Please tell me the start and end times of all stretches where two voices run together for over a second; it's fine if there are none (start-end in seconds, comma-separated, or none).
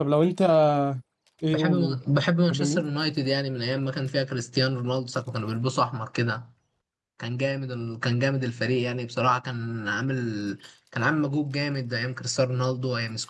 none